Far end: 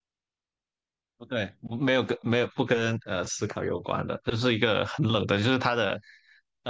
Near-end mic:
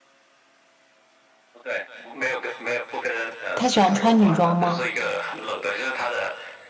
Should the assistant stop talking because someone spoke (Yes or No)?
Yes